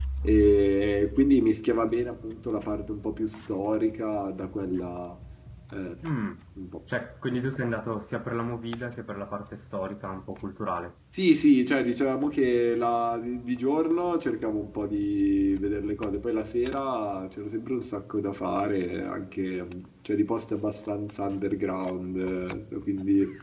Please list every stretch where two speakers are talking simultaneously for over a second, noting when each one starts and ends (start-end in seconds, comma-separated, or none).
none